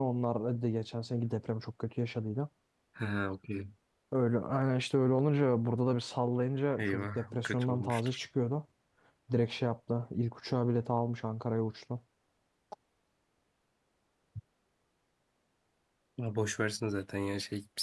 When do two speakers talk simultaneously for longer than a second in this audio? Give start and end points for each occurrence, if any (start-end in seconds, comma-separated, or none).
6.8-8.2